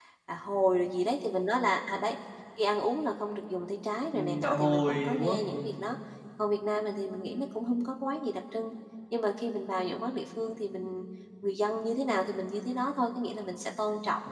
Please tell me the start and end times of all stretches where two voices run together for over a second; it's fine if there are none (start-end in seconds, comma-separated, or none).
4.1-5.8